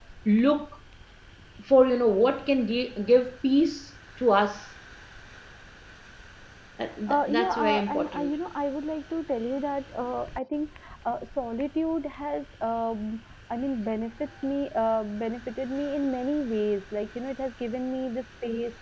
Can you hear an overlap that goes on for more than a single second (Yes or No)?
Yes